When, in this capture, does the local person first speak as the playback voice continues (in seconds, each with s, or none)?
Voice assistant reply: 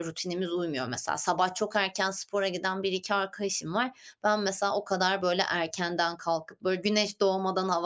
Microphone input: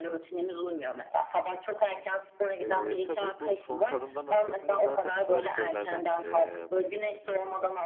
2.6 s